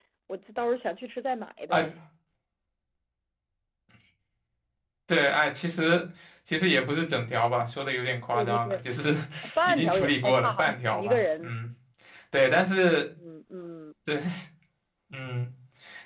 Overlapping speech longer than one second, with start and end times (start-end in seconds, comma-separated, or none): 9.7-11.5